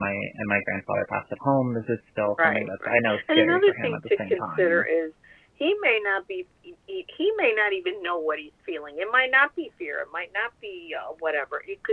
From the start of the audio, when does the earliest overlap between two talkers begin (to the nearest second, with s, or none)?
2 s